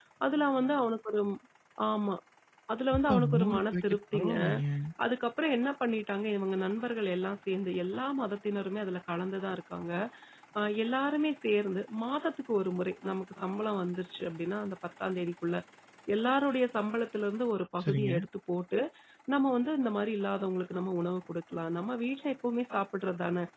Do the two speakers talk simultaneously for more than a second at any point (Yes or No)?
Yes